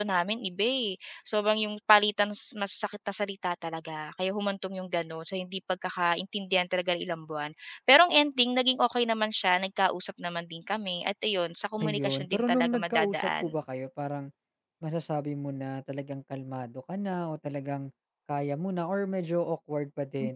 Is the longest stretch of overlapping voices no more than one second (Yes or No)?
No